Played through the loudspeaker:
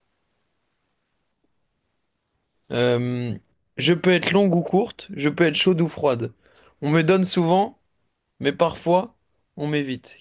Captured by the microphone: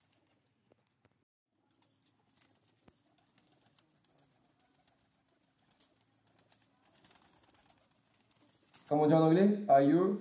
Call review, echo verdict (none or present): none